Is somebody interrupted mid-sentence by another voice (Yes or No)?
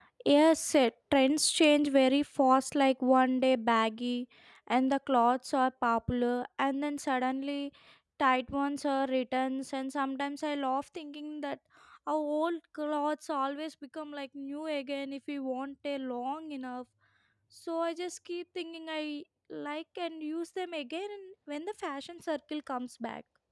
No